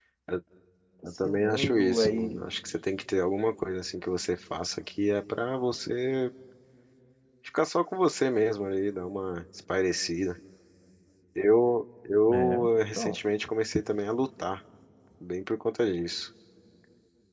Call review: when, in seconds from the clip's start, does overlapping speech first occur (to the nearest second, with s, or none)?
1 s